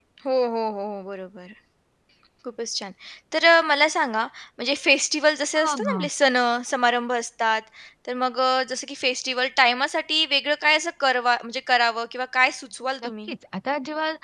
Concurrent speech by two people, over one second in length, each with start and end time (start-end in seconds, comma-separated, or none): none